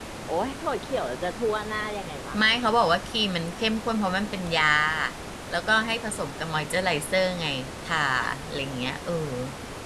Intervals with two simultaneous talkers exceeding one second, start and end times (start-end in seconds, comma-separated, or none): none